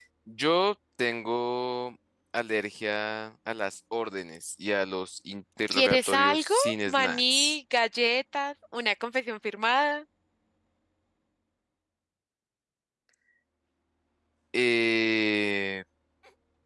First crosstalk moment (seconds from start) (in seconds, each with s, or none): 5.7 s